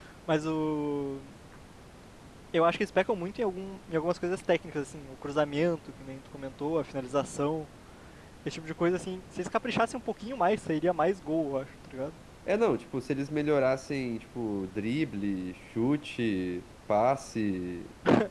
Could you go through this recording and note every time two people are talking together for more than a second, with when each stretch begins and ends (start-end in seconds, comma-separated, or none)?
none